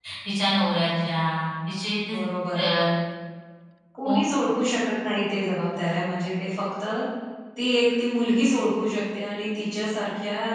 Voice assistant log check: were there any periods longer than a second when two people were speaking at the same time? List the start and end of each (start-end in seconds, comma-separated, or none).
none